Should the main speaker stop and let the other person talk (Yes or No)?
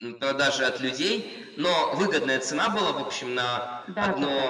No